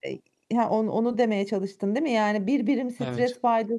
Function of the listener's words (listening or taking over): listening